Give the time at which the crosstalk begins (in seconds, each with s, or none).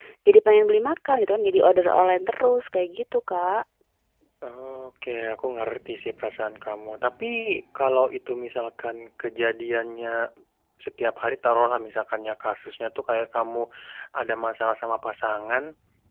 none